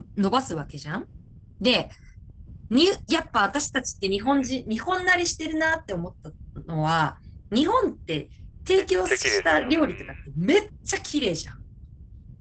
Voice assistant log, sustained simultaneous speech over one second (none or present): present